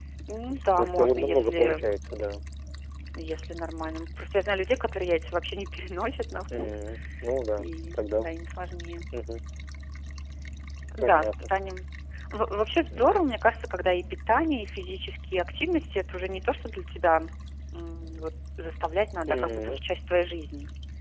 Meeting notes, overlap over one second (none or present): present